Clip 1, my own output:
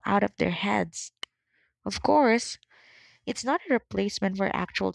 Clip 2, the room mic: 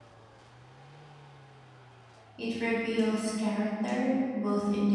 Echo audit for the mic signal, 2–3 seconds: user only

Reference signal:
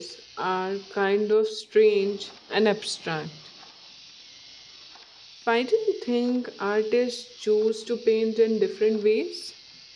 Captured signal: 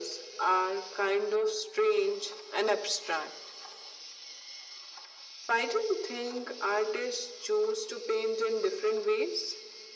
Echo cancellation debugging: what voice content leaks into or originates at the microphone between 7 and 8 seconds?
echo only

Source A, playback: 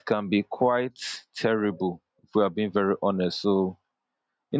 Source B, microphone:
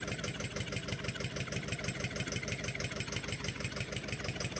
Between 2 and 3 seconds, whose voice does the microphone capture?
neither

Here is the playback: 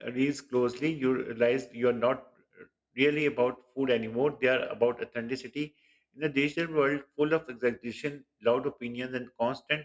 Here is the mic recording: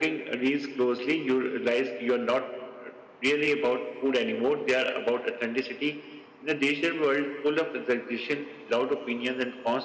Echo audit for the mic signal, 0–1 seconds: echo only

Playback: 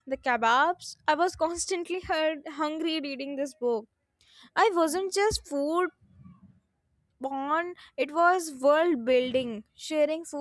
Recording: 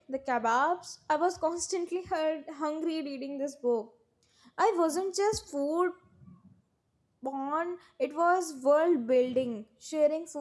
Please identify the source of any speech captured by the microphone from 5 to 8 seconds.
echo only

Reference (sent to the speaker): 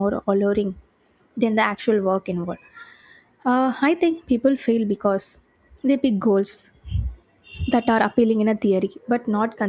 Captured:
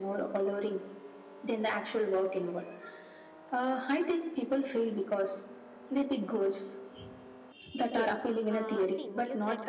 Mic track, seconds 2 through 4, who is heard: echo only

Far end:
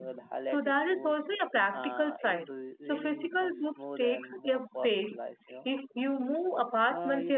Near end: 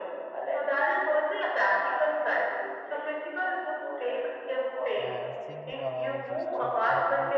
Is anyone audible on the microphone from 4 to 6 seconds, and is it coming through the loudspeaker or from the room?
both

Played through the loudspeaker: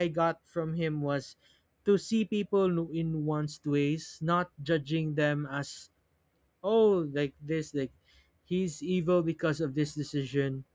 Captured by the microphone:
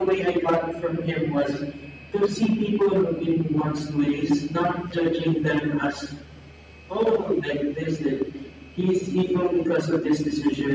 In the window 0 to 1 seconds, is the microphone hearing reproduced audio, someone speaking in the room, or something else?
echo only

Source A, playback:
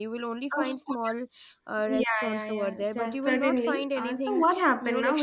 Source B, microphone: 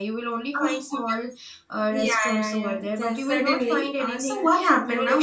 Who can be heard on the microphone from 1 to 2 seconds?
echo only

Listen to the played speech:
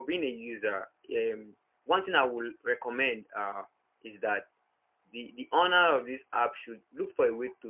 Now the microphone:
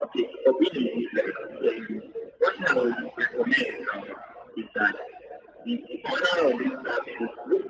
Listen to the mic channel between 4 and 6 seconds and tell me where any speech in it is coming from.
echo only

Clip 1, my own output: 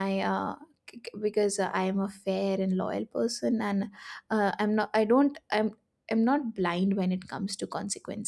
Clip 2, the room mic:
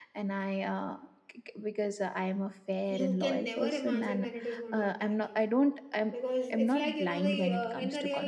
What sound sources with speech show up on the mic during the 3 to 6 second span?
both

